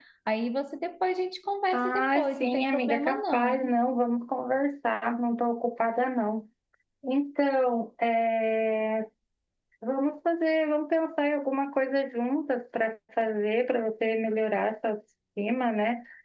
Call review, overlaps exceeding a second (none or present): present